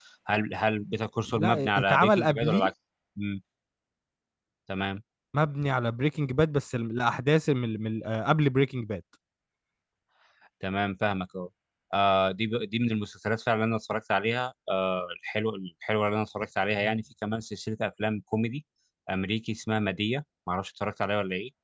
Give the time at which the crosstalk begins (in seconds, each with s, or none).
1.3 s